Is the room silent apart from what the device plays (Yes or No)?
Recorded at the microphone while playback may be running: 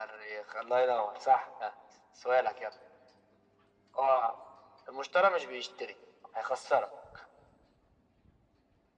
Yes